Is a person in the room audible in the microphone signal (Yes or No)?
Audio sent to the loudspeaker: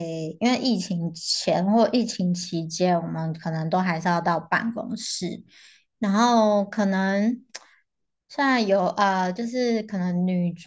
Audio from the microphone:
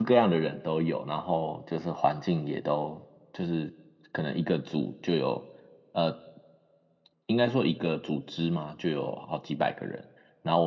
Yes